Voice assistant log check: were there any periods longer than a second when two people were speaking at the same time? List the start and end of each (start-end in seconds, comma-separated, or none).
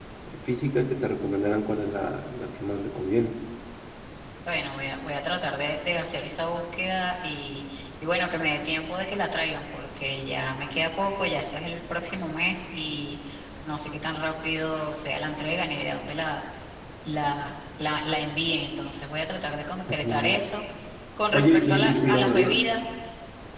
21.3-22.7